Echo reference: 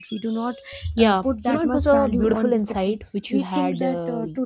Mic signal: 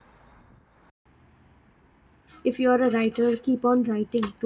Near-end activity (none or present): present